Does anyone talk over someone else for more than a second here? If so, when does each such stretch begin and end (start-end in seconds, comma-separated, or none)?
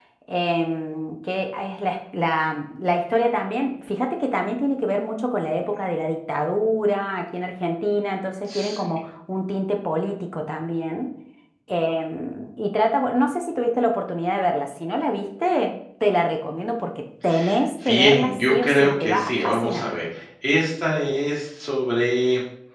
17.8-19.8